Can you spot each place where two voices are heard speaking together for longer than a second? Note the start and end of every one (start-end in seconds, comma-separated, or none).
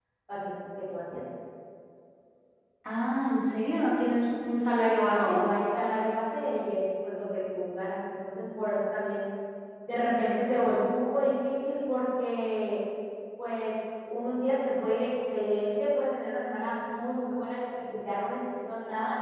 none